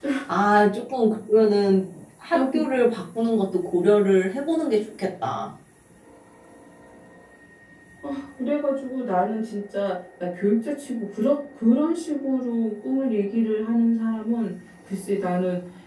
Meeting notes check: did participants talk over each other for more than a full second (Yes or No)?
No